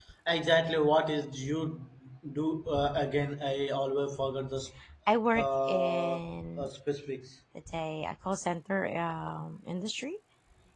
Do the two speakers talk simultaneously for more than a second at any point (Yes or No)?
Yes